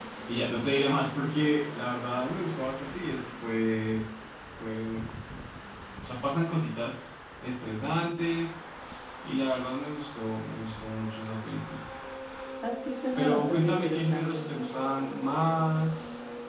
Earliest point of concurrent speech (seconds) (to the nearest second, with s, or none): 13 s